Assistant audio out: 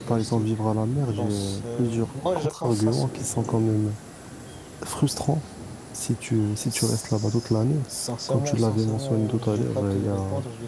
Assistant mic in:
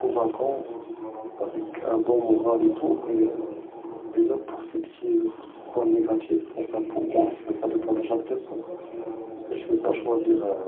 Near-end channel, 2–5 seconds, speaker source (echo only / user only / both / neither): both